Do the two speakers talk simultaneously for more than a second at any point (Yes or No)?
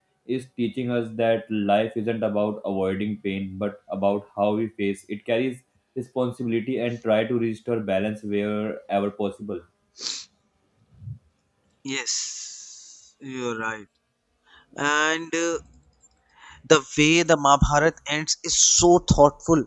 No